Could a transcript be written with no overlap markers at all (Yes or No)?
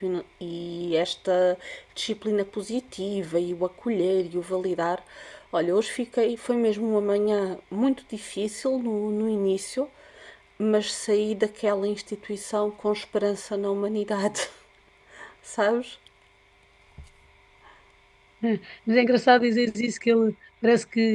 Yes